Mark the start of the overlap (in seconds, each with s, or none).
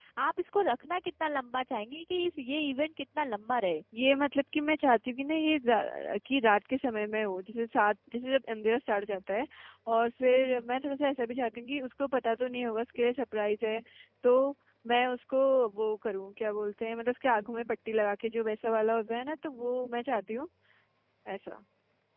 none